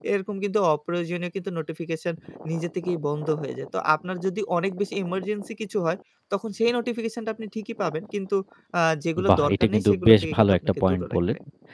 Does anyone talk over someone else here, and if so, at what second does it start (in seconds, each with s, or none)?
9.3 s